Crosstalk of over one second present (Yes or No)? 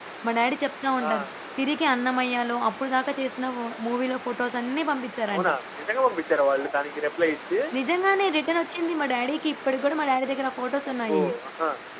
No